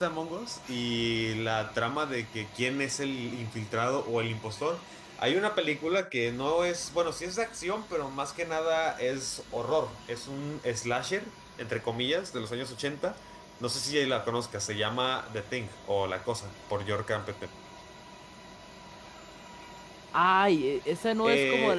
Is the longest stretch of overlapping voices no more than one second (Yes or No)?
Yes